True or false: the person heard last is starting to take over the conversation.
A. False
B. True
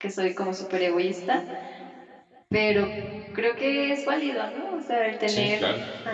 A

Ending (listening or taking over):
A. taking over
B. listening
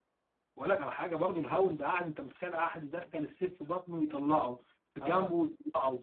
B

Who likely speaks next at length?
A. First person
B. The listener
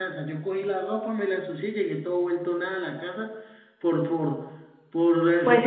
B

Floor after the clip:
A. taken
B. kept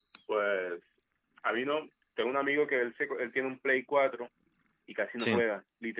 B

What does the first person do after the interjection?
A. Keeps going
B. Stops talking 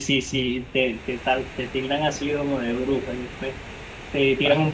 A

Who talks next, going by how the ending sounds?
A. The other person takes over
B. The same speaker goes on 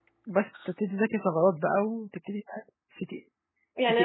A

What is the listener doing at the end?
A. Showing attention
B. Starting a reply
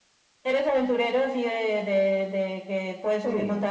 B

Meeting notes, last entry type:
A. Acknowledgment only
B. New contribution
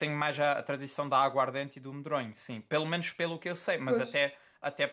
A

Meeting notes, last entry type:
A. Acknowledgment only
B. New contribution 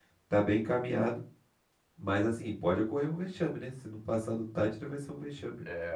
B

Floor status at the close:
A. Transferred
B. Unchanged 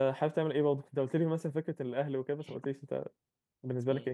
A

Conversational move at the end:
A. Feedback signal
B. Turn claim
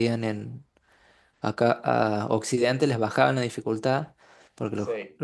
A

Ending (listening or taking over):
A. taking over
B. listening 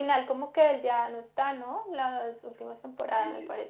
A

